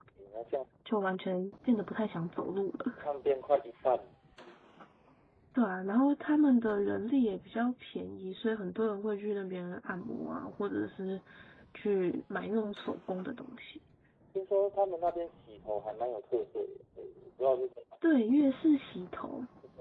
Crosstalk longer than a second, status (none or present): none